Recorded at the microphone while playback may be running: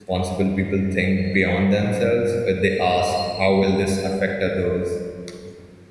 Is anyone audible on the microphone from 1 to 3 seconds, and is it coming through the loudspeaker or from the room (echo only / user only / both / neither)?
user only